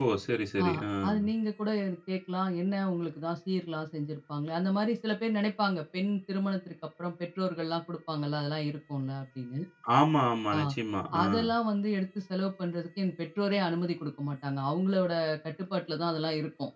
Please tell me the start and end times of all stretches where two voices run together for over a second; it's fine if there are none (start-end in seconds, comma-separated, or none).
none